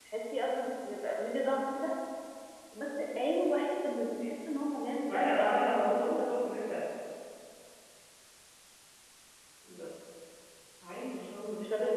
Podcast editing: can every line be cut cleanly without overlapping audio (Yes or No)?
No